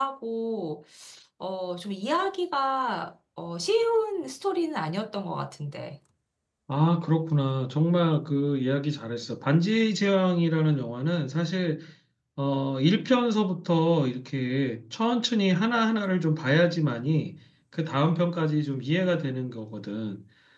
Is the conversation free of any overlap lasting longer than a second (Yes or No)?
Yes